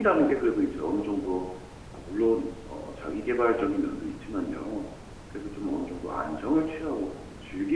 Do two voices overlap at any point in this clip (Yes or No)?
No